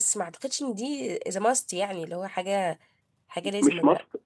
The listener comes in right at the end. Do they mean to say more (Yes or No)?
Yes